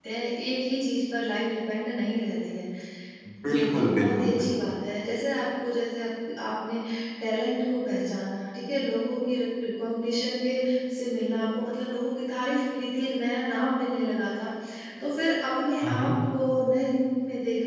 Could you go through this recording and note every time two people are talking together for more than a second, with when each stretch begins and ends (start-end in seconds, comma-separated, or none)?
3.5-4.7